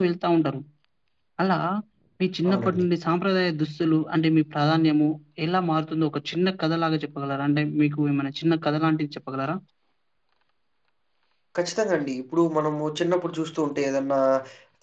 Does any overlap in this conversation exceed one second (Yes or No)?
No